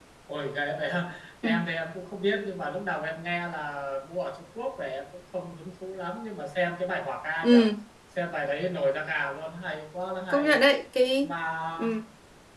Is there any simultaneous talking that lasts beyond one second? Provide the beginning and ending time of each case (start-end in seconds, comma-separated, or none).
none